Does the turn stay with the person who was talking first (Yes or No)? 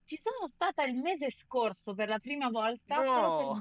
Yes